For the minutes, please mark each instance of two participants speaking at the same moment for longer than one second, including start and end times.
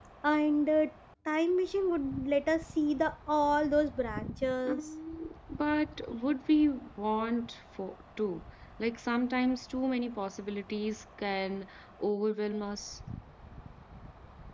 none

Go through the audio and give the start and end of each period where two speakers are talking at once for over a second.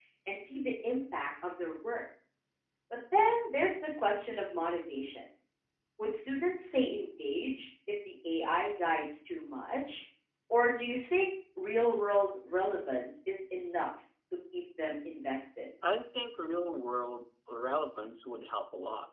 none

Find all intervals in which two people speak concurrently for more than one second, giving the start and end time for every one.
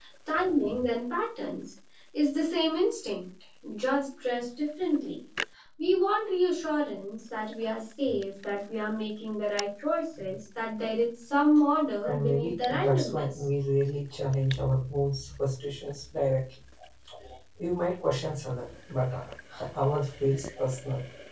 12.1-13.4

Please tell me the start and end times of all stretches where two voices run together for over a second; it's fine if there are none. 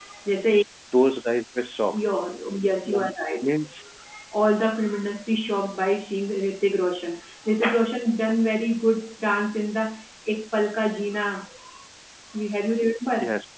none

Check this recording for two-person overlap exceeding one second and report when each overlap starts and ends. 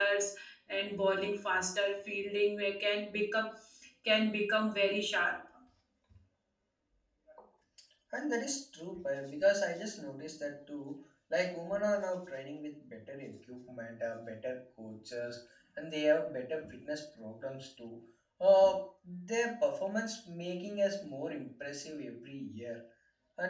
none

